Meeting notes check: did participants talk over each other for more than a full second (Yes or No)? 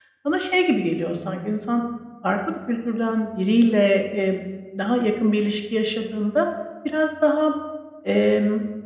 No